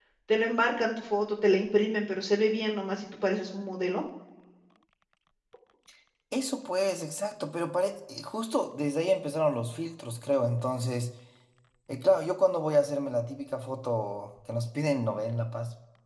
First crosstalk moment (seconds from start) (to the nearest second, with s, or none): none